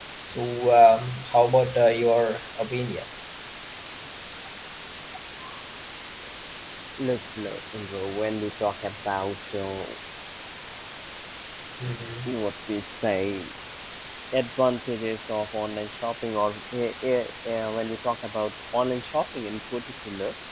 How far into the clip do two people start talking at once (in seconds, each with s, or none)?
none